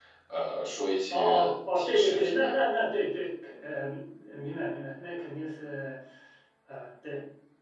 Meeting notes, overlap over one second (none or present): present